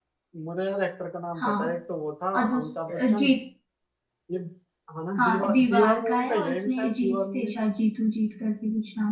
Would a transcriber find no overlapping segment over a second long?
No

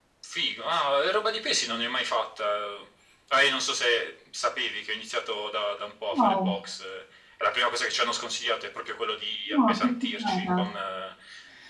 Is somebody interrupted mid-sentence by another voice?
Yes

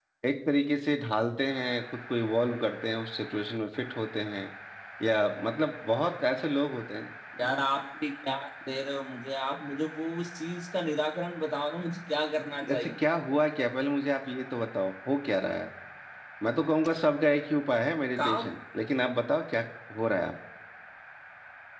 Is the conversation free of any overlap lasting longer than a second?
Yes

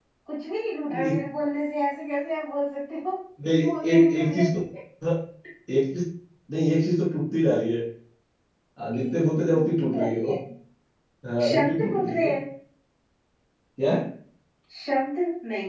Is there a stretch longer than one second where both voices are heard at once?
Yes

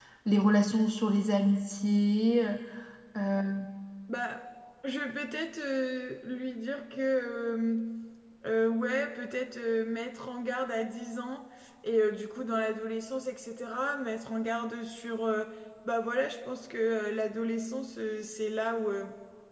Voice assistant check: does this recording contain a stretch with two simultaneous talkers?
No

